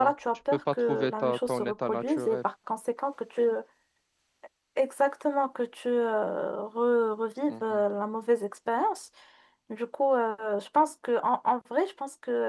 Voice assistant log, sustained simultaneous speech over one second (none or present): present